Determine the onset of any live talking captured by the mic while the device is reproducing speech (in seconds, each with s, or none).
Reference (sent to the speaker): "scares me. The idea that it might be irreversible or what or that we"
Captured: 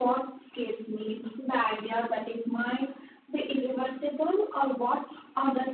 none